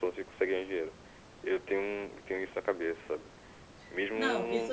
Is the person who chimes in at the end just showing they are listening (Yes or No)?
No